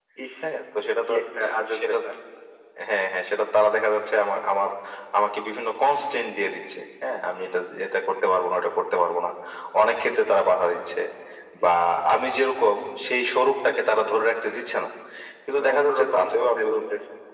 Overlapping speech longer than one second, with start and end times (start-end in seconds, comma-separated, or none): 15.5-16.8